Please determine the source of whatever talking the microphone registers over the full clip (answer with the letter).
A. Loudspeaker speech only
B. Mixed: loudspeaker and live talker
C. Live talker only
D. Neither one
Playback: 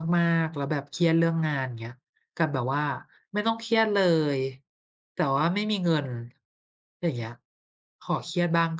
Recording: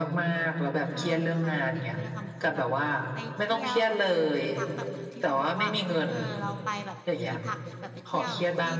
B